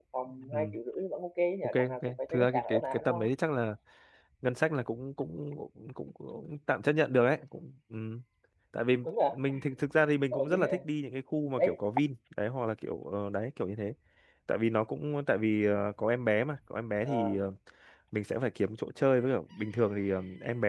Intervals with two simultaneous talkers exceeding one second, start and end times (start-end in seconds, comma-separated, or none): 1.6-3.3